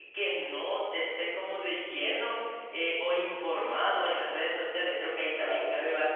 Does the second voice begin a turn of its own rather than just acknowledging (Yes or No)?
No